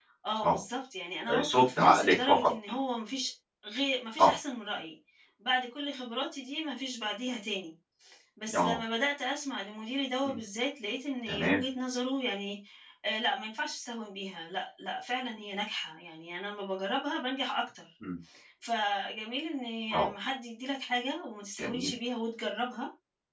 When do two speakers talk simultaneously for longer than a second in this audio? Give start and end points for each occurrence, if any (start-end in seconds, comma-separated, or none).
1.3-2.5